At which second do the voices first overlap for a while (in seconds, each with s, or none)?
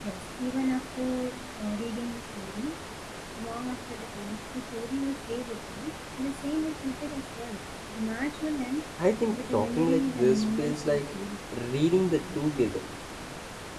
9.3 s